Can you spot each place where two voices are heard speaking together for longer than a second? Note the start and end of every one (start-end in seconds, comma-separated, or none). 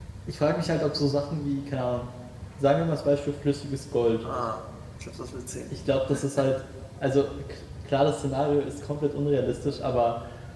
none